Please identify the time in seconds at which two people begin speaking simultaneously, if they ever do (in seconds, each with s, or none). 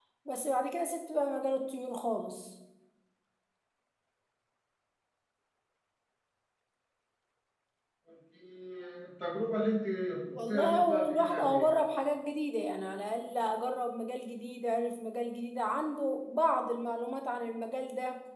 10.5 s